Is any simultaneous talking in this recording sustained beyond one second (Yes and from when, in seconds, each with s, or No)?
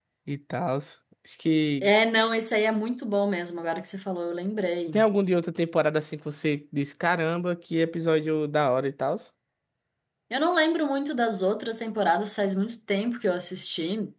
No